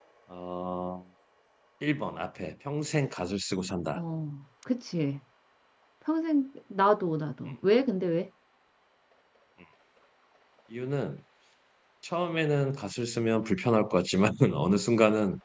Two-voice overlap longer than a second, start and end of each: none

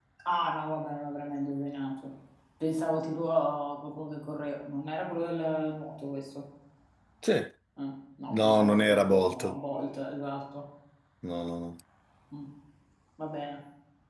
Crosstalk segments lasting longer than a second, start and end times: 8.3-9.6

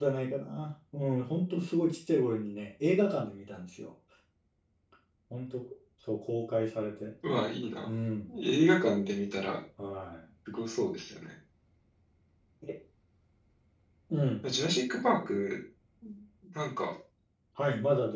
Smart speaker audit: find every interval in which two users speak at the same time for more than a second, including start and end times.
none

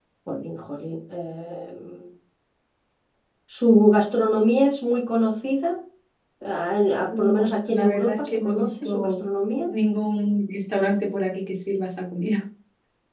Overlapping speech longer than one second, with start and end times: 7.1-9.2

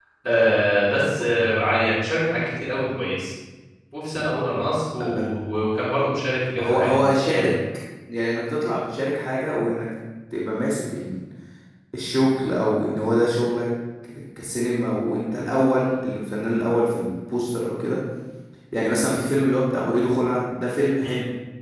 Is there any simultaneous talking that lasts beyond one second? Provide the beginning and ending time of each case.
none

